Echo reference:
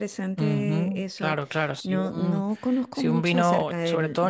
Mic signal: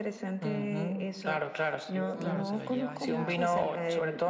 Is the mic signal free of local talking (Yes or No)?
No